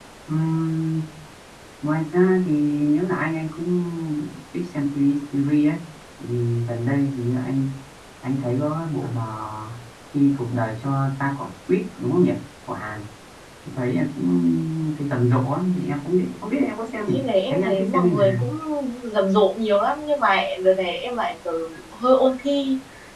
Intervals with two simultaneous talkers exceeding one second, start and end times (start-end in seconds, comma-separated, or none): 17.0-18.5